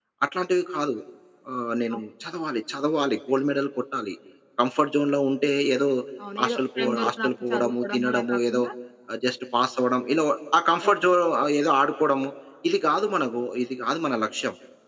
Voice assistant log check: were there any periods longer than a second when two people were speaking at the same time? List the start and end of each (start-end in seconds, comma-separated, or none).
6.4-8.6